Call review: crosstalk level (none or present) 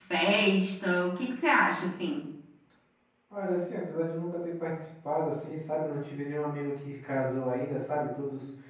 none